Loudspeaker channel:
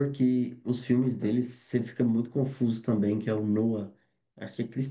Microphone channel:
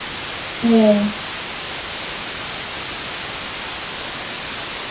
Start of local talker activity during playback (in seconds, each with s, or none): 0.6 s